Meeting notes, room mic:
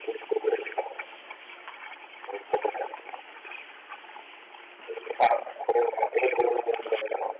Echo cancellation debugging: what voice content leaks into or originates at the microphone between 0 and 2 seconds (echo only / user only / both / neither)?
echo only